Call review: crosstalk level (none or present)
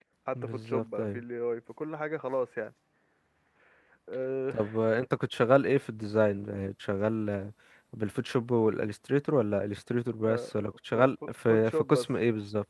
present